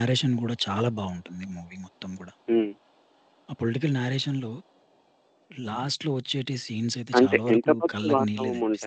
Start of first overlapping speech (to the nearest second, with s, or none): 7 s